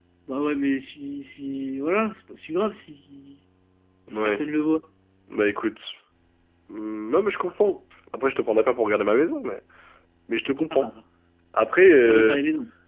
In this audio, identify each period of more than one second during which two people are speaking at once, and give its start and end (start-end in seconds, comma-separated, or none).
none